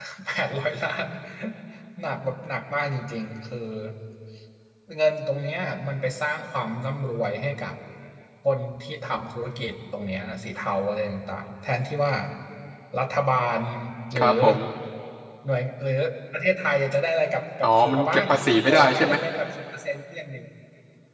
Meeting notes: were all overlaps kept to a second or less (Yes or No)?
No